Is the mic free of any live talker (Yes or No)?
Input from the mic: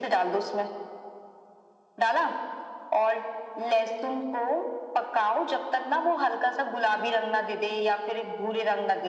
Yes